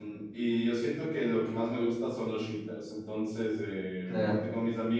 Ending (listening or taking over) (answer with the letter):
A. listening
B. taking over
A